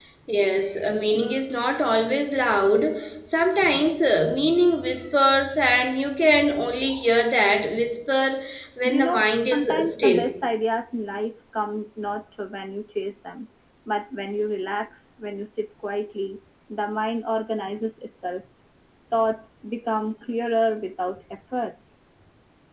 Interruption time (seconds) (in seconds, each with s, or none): 8.8 s